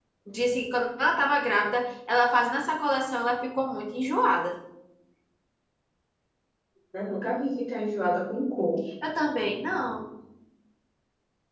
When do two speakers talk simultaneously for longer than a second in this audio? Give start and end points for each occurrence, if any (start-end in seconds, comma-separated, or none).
none